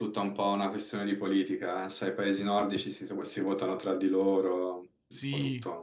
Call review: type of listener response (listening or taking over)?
taking over